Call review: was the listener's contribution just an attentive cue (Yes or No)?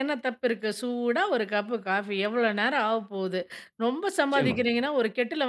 Yes